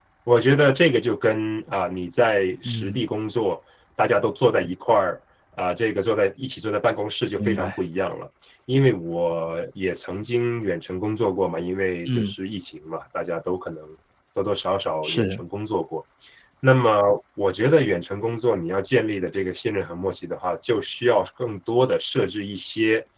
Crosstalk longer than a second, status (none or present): none